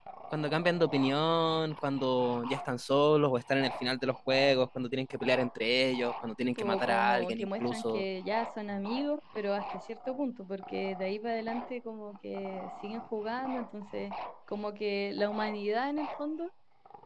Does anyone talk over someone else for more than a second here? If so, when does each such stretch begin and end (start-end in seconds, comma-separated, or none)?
6.4-8.0